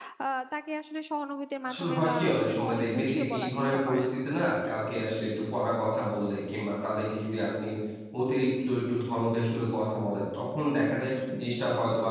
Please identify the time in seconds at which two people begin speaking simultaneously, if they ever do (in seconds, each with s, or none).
1.6 s